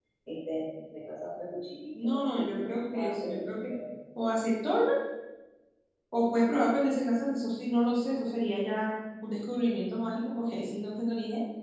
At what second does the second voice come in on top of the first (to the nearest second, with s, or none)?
2 s